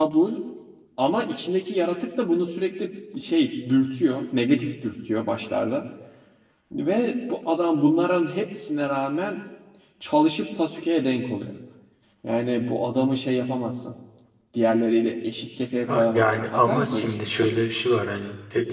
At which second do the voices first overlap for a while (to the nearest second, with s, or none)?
16 s